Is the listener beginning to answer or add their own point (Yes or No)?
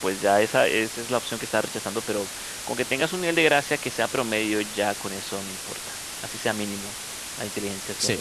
Yes